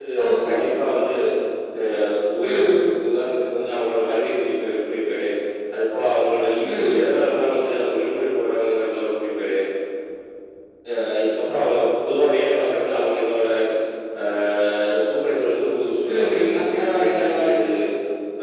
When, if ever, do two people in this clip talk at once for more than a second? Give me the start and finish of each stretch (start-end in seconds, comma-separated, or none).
16.1-17.6